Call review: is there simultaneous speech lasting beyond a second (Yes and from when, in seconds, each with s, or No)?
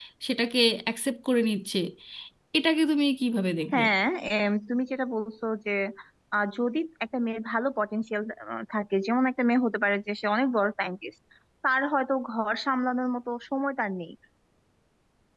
No